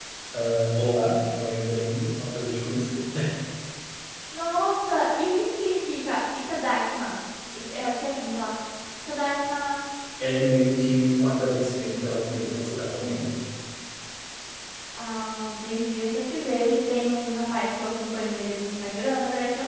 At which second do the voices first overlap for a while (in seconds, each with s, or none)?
none